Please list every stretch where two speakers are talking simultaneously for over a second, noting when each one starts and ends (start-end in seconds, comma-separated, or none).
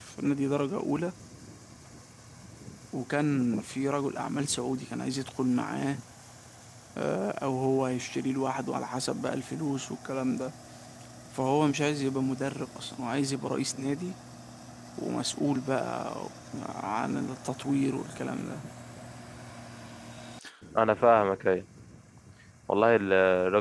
none